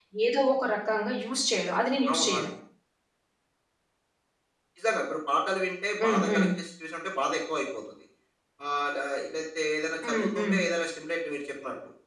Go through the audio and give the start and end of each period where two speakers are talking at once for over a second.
none

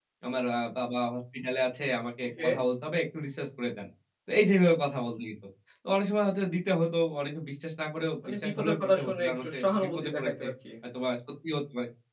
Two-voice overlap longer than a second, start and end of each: 8.3-10.4

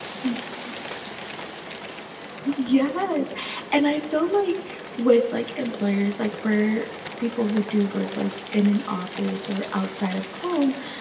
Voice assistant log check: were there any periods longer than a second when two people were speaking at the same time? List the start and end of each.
none

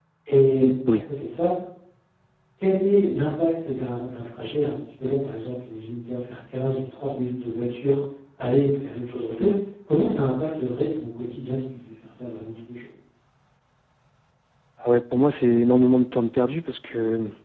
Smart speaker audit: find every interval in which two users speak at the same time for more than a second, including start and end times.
none

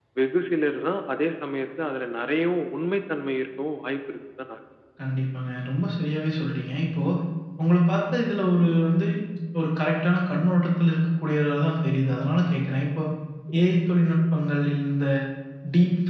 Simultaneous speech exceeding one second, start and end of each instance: none

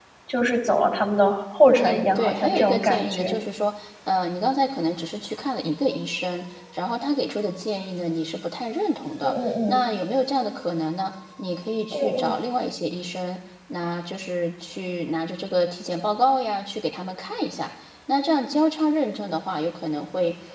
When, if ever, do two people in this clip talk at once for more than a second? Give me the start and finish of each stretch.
1.8-3.4

